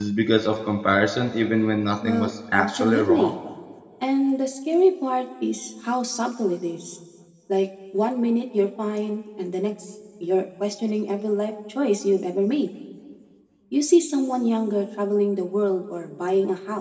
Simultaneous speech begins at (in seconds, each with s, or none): 2.0 s